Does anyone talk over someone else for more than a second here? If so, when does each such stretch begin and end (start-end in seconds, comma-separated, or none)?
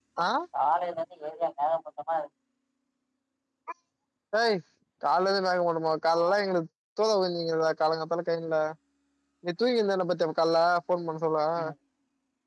none